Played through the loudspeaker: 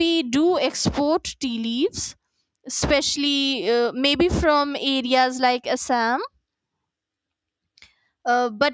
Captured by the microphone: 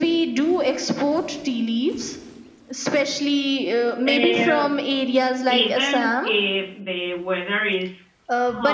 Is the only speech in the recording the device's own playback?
No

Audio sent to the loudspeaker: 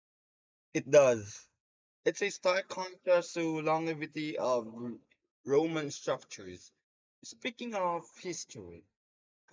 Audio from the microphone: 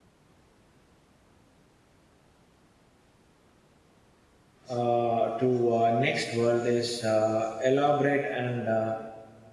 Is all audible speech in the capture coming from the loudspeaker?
No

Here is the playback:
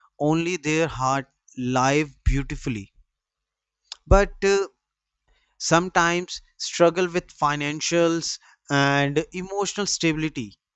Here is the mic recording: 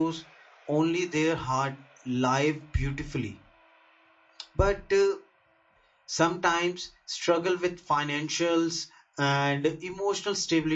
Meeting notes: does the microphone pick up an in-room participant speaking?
No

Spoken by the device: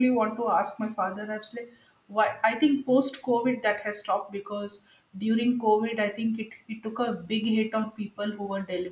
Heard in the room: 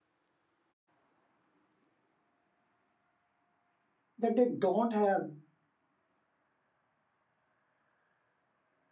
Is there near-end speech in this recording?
Yes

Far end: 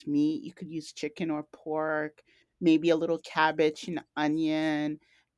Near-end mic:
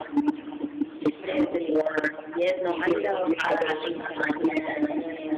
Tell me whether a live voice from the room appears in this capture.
Yes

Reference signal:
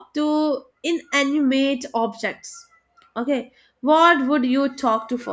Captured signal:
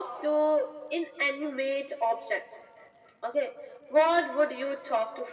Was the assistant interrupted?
No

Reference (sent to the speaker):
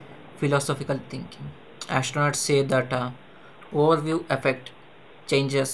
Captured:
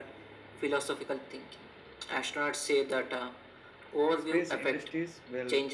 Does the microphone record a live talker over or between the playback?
Yes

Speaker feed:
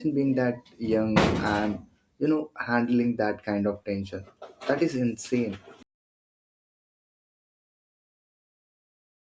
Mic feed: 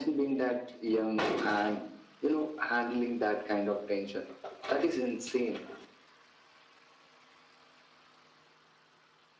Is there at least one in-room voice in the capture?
No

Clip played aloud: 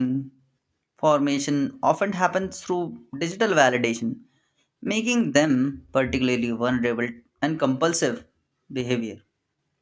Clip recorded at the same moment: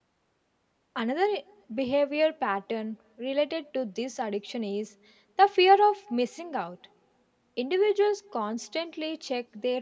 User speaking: Yes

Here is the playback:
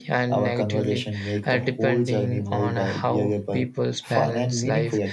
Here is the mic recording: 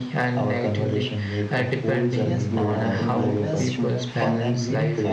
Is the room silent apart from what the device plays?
No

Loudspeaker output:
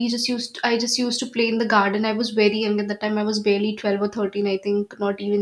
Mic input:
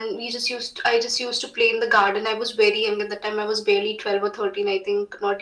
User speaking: No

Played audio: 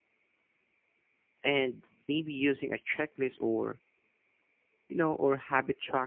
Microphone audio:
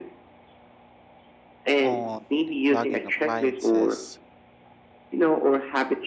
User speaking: Yes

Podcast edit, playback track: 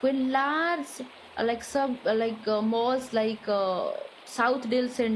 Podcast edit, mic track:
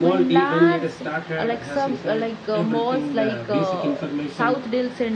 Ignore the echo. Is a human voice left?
Yes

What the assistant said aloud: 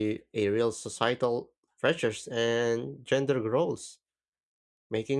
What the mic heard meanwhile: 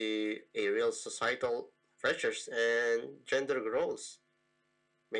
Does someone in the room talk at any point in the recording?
No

